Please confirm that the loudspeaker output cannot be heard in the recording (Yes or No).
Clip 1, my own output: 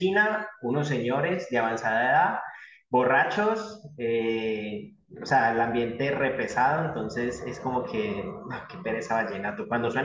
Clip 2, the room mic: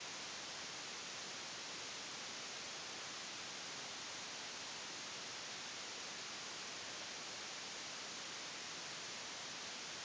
Yes